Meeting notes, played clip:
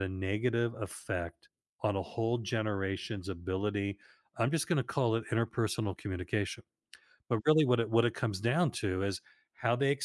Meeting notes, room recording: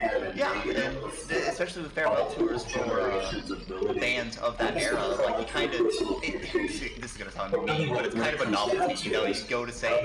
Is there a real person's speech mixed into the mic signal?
Yes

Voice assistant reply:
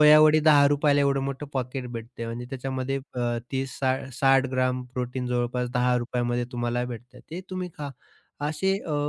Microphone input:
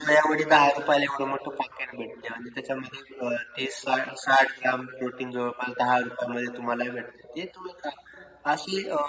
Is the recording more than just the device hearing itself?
No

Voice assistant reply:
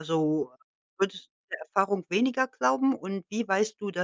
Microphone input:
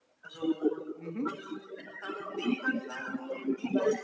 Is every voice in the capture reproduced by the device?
No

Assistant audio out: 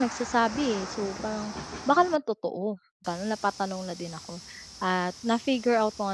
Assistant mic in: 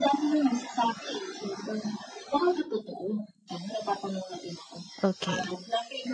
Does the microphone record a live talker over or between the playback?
Yes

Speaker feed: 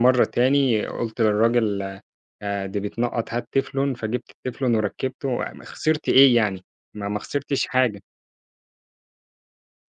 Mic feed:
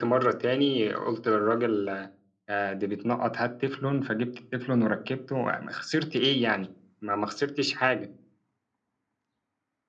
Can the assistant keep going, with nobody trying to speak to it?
Yes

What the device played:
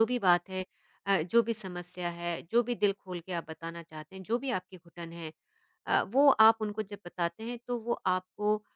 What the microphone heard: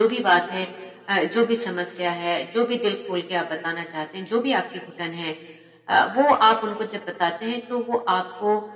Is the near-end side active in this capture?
No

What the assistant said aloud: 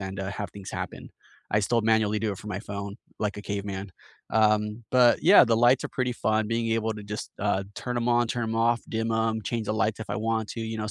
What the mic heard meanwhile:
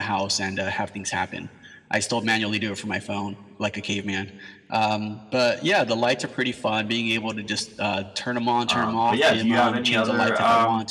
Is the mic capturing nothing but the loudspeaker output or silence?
No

